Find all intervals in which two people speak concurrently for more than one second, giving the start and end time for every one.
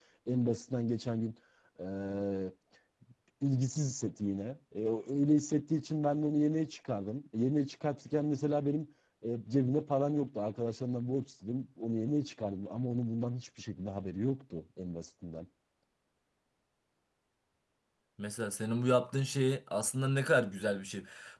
none

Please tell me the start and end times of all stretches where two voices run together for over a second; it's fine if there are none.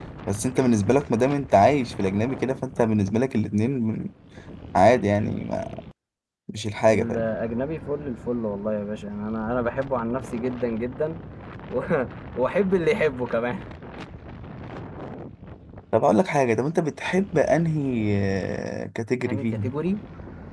none

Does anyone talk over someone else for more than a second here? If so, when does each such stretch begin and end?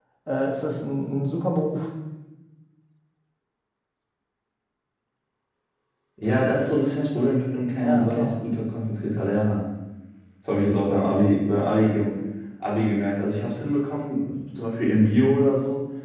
none

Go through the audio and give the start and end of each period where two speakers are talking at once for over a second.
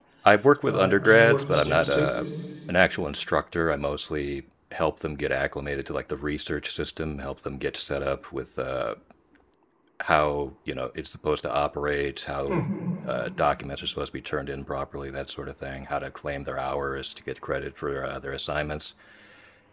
0.7-2.2

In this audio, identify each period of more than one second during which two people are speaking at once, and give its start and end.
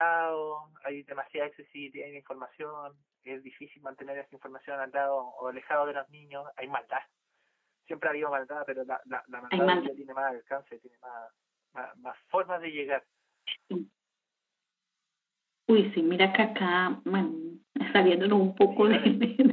none

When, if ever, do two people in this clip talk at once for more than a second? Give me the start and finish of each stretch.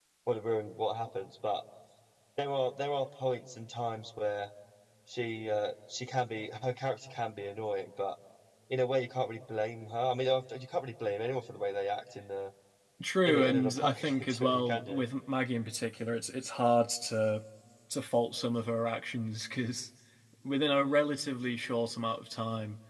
13.3-15.0

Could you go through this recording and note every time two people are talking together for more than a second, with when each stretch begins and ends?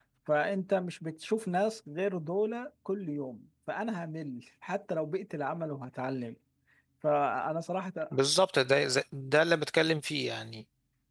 none

